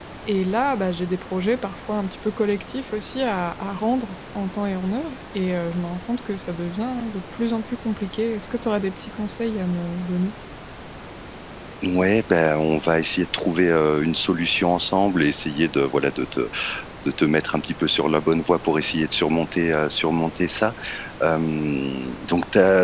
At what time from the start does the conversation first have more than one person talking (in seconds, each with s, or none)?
none